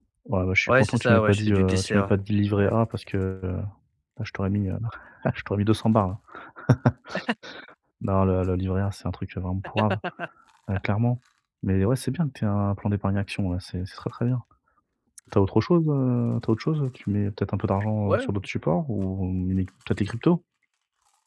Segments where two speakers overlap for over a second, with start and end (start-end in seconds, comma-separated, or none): 0.7-2.1